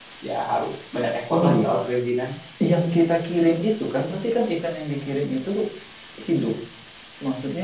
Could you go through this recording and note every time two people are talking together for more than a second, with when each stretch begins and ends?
none

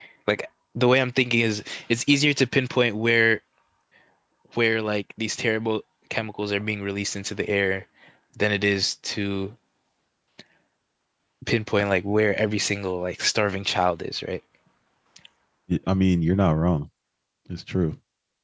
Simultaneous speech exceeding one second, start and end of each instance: none

